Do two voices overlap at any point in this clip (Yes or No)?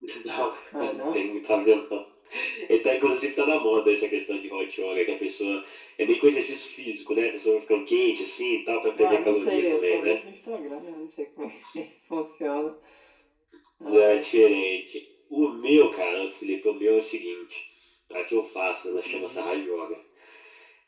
Yes